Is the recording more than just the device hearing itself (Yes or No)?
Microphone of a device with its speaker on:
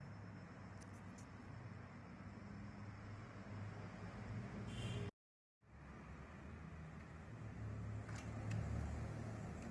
No